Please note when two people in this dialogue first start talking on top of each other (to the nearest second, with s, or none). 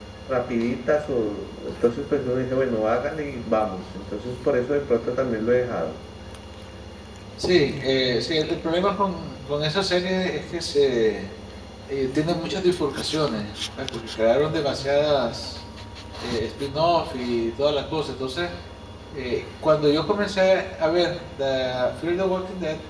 none